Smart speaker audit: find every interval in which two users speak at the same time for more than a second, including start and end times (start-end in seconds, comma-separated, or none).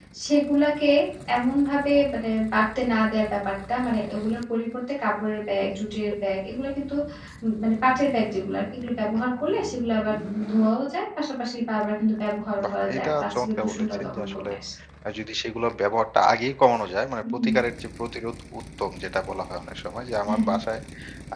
12.6-14.5